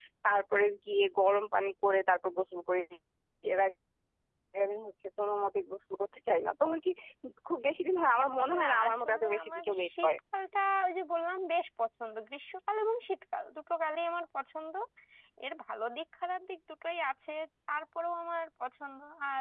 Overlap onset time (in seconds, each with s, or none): 8.5 s